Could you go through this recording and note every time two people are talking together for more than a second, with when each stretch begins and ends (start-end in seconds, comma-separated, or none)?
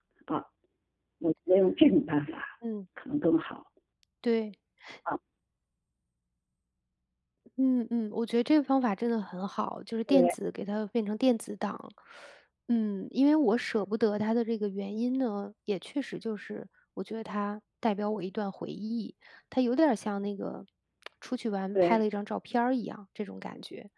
none